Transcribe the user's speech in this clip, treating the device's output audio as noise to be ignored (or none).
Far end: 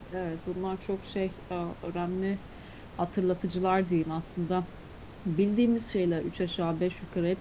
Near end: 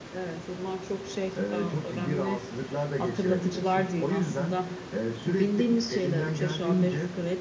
e, çok ciddi rahatsızlıklar da geçirebilirsin. O yüzden e, sürekli elinden geldiğince